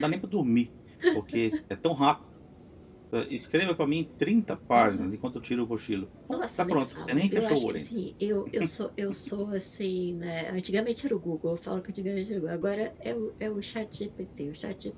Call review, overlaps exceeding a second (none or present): present